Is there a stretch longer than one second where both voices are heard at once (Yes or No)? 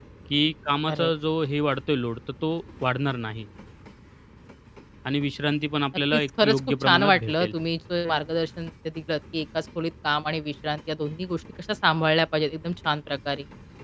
Yes